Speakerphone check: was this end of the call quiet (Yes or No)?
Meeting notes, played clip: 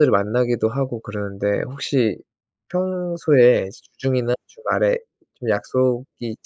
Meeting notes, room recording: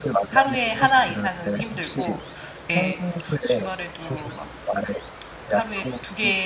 No